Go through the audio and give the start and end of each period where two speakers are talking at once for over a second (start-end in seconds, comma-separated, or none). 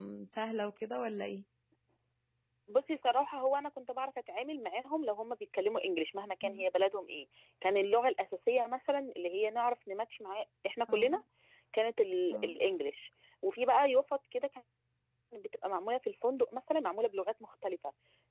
none